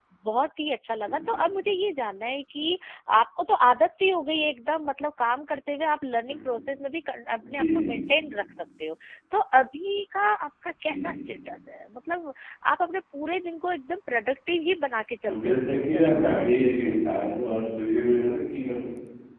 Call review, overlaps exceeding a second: present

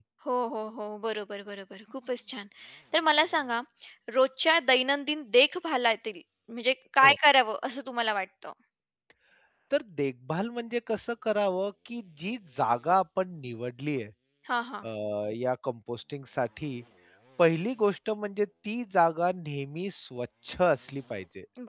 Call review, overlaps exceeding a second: none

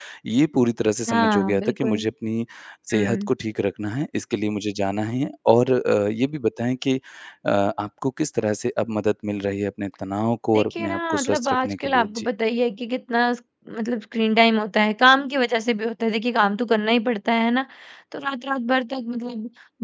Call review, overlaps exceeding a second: present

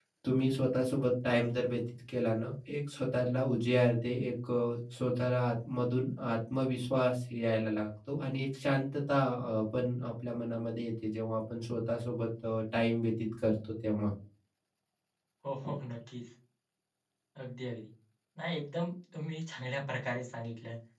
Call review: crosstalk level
none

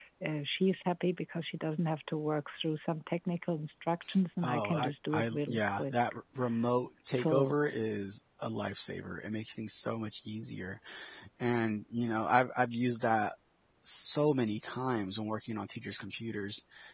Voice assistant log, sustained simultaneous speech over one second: present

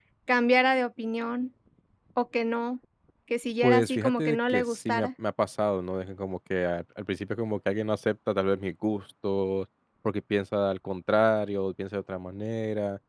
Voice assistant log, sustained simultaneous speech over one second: present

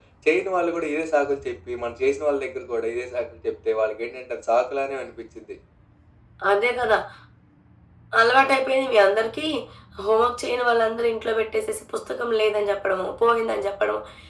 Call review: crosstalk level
none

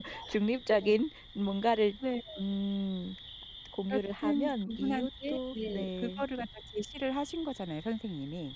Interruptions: present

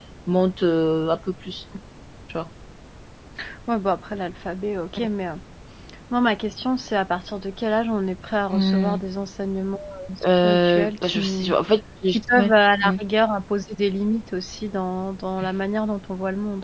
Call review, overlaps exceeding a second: present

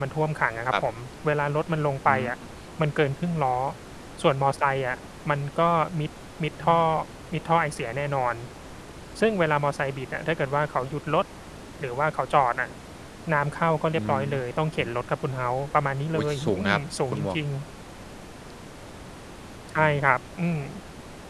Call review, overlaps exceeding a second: present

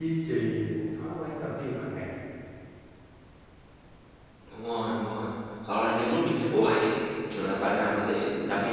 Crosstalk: none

